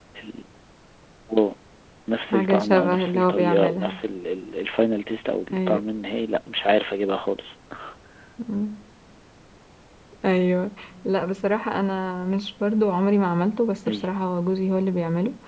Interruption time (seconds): 2 s

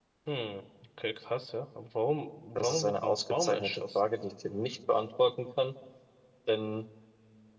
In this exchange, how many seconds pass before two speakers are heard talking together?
3 s

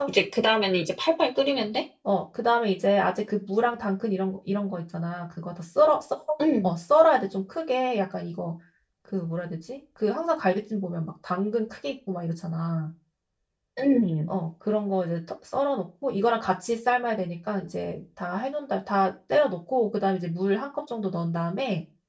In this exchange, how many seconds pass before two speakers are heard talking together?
none

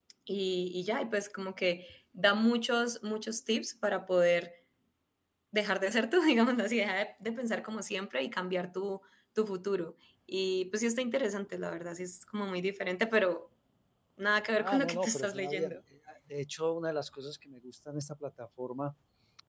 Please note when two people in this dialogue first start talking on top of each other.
15 s

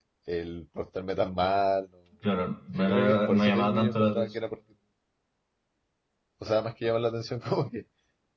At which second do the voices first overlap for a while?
3 s

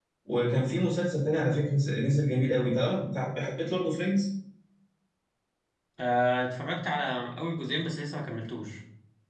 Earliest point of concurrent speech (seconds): none

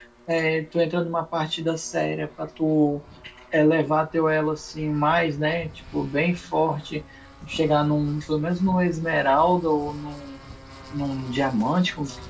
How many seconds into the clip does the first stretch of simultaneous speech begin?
none

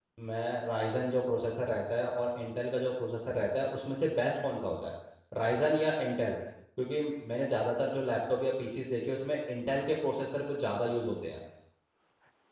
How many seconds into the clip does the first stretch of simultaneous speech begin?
none

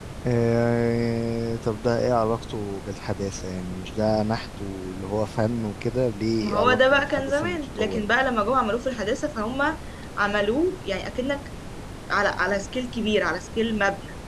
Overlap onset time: 6 s

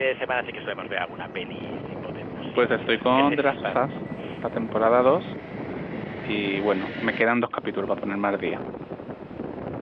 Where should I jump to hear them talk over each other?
3 s

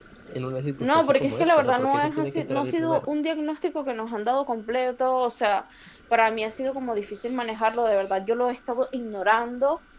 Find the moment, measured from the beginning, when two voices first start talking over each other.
1 s

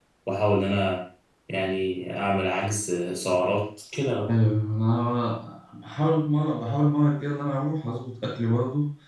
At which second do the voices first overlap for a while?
none

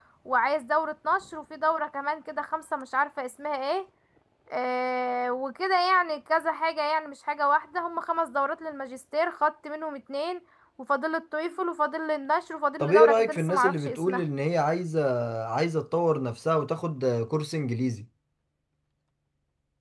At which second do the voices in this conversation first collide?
13 s

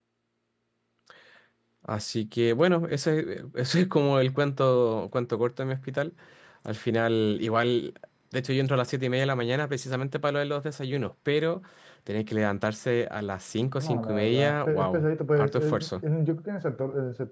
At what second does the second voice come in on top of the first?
14 s

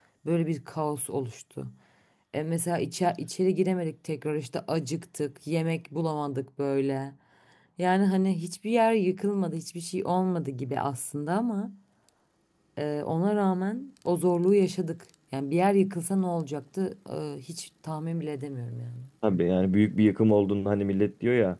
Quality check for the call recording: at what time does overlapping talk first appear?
none

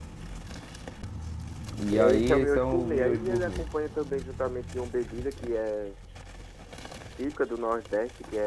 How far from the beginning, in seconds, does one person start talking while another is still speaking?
2 s

